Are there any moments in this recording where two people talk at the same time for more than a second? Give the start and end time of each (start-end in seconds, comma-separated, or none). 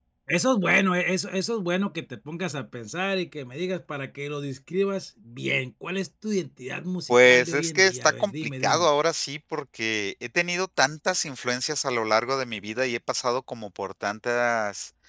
7.1-8.9